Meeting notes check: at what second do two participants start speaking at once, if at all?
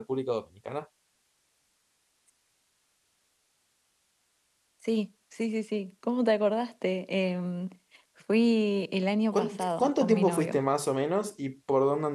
9.3 s

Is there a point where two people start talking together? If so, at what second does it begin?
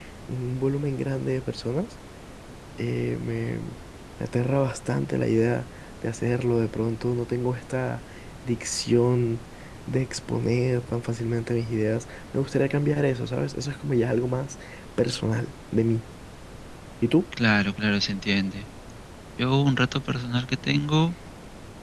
none

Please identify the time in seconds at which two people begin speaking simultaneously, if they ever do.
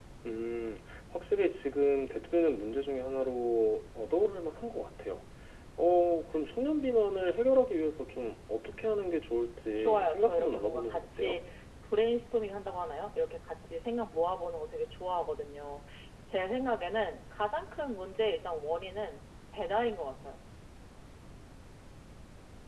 9.8 s

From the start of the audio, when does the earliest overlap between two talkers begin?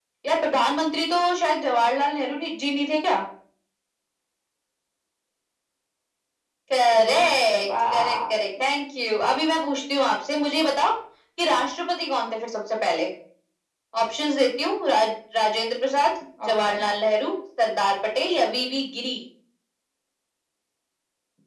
6.9 s

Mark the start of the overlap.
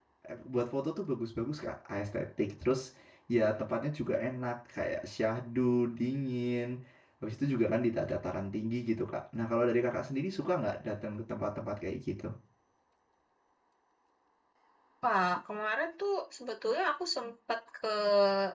none

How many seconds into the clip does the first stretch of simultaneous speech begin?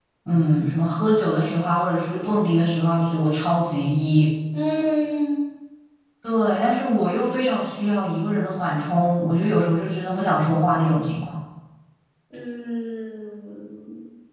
none

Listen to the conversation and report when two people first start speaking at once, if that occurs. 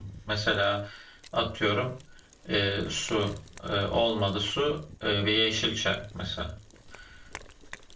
none

